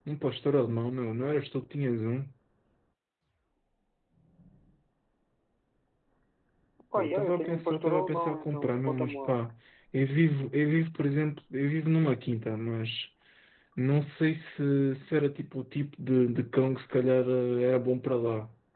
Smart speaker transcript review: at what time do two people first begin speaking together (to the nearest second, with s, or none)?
7 s